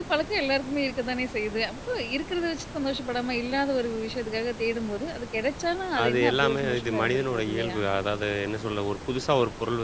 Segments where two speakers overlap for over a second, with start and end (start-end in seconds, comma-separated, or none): 6.0-7.8